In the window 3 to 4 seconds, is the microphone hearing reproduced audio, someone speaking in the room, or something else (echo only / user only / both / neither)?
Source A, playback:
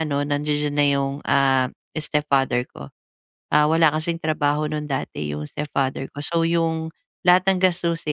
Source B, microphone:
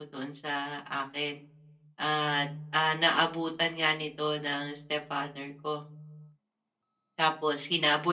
user only